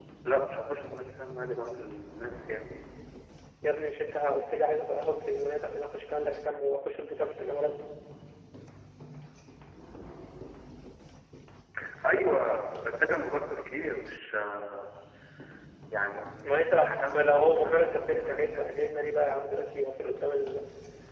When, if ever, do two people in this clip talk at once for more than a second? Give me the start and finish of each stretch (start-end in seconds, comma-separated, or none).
16.4-18.4